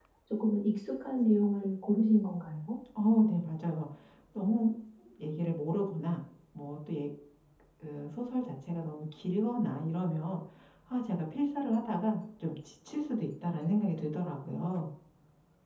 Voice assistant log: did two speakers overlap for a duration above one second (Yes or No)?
No